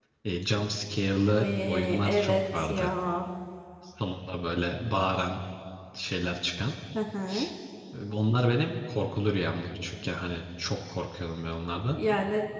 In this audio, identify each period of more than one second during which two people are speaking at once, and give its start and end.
1.3-2.9

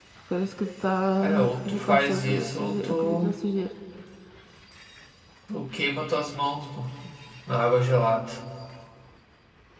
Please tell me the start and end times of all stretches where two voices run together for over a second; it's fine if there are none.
1.2-3.3

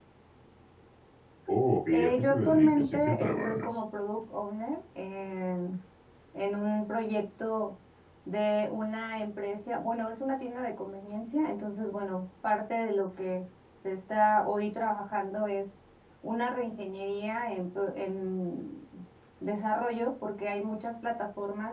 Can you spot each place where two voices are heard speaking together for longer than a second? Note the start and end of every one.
1.9-3.8

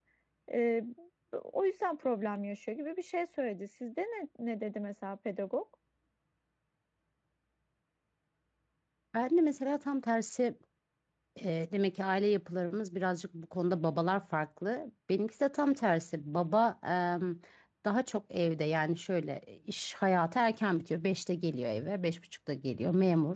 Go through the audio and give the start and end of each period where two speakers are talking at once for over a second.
none

